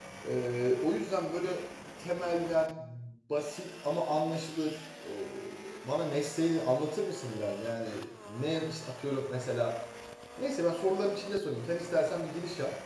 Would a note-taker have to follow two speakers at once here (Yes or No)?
No